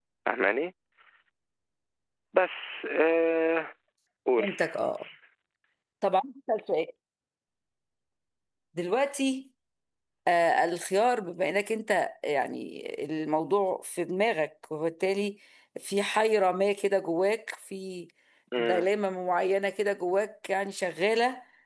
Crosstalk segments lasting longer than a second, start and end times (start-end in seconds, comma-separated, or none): none